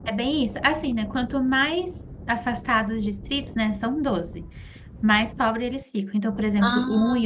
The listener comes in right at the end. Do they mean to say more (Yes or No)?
No